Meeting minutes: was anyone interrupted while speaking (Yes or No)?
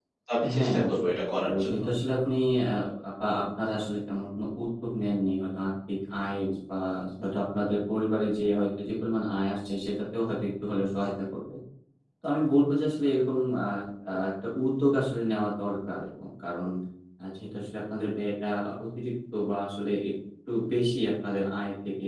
Yes